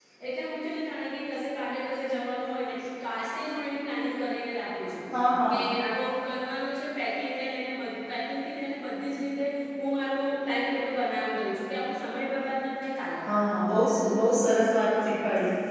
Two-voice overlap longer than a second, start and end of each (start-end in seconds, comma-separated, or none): none